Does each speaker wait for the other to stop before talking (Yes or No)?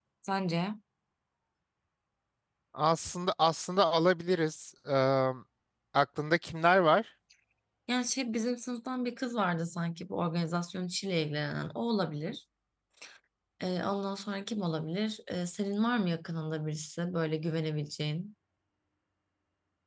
Yes